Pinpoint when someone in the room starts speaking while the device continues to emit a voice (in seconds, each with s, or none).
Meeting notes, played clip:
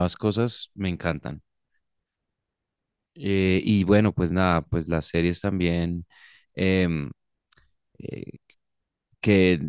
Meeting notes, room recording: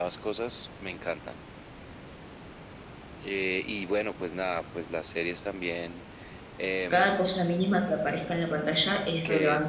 6.9 s